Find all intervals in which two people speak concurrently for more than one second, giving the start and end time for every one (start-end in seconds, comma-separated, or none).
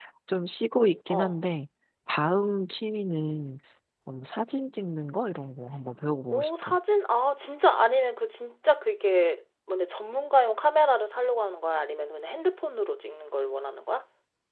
none